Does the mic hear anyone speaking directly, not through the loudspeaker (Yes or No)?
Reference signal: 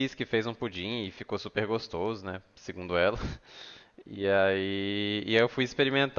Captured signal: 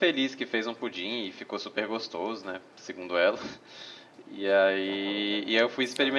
Yes